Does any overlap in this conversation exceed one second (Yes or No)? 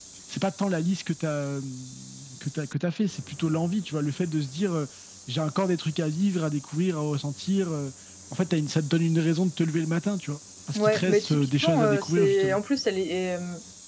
Yes